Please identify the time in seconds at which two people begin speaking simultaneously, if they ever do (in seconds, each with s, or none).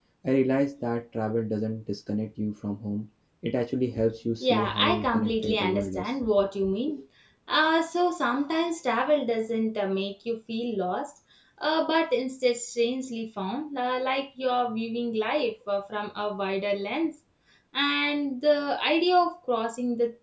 4.4 s